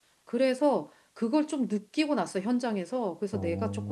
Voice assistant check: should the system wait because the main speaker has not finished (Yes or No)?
Yes